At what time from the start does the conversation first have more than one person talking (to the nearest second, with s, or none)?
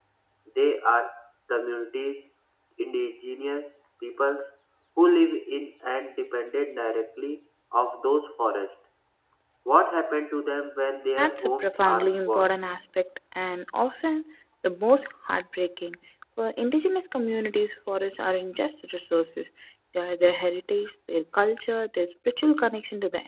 11 s